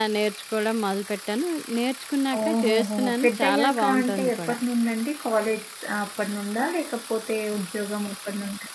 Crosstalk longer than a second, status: present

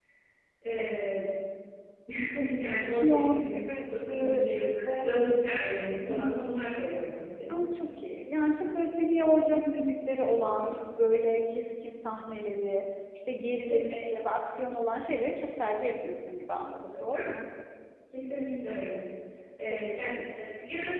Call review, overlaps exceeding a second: present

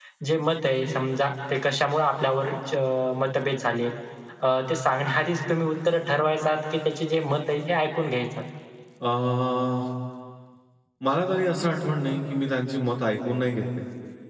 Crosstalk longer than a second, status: none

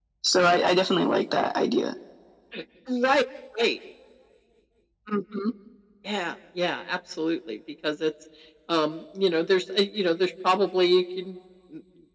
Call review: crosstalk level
none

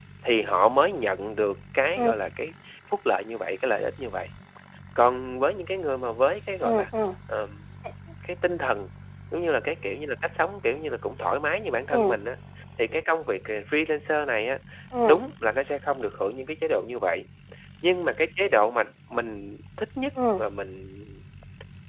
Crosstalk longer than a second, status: none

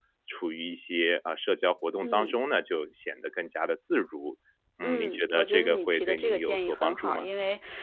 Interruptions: present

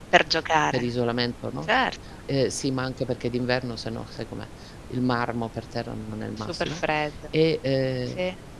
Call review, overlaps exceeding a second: none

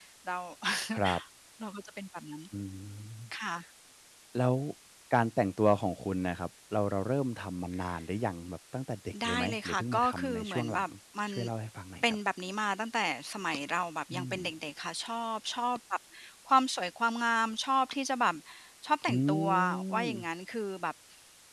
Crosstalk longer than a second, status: present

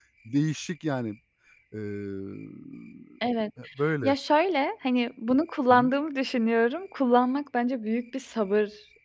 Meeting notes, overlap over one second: none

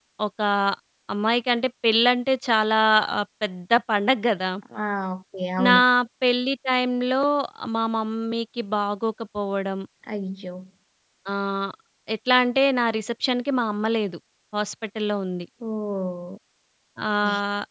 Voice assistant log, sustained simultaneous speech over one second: none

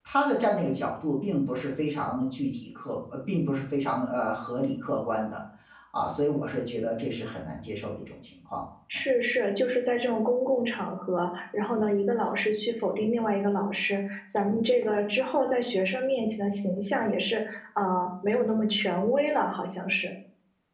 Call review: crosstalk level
none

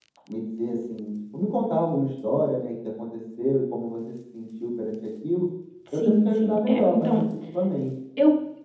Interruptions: present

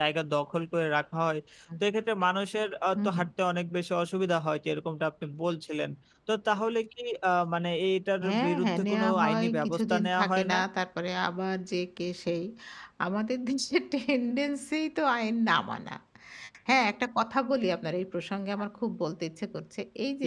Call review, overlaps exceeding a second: present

